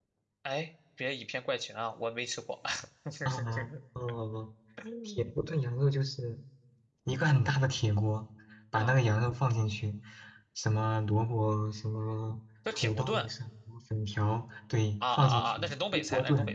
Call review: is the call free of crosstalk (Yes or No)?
No